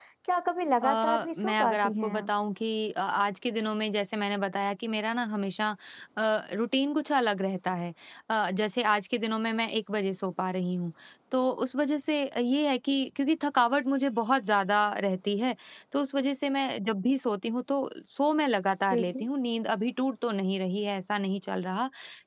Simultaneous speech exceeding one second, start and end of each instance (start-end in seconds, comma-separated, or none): 0.8-2.3